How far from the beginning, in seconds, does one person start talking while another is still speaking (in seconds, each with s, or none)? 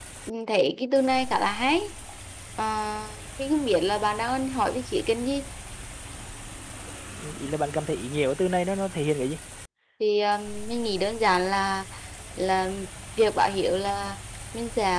none